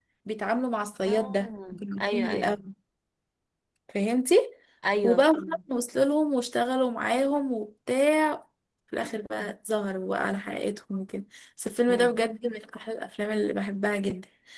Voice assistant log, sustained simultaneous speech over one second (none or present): present